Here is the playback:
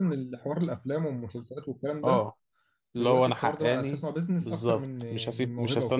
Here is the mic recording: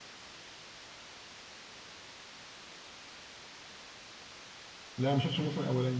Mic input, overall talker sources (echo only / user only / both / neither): user only